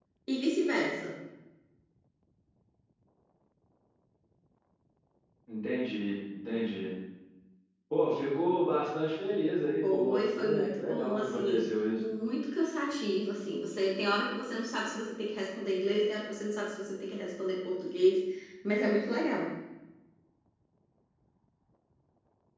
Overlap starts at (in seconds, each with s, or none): 9.8 s